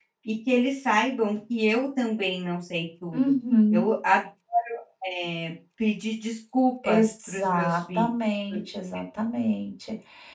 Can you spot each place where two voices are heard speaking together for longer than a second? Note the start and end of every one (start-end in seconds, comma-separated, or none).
6.8-8.1